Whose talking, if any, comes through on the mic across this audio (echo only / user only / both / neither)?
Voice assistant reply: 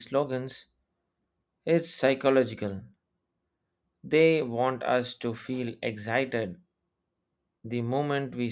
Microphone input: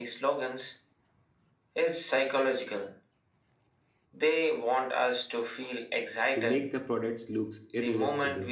both